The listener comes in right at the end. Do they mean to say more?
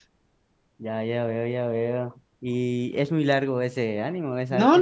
Yes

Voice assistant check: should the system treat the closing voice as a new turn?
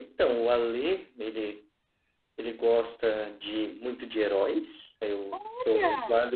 No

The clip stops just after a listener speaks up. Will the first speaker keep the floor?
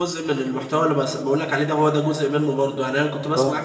Yes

